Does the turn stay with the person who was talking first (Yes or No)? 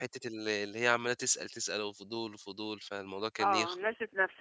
No